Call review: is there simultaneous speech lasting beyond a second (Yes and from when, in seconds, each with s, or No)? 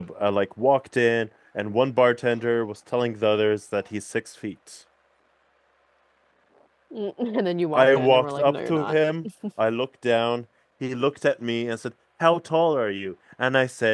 Yes, from 7.7 s